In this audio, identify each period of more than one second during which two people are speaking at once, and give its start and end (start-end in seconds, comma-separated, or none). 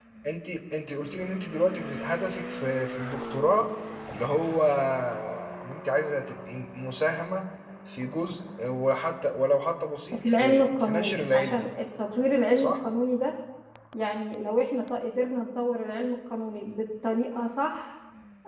10.2-11.6